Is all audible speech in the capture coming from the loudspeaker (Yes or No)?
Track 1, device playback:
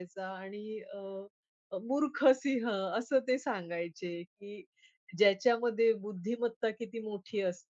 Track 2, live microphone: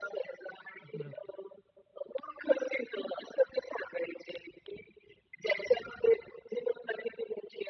No